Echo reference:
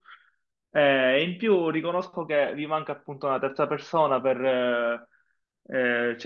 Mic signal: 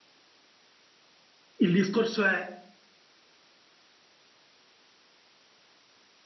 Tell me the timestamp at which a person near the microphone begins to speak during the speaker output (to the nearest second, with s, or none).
2 s